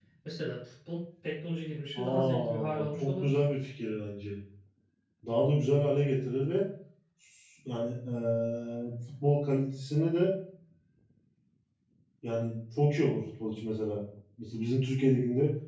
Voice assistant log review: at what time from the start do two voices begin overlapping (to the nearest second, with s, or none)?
2 s